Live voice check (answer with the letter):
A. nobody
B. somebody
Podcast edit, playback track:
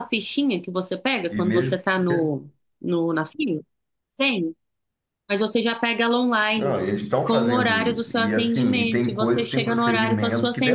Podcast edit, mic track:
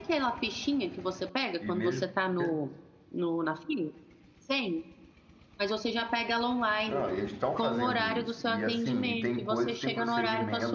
A